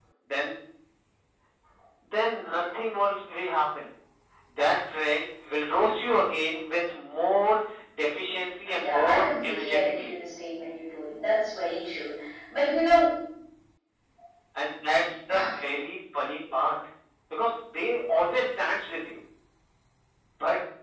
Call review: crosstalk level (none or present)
present